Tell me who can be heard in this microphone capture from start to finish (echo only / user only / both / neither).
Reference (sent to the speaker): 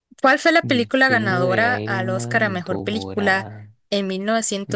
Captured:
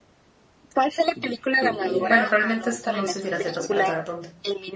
both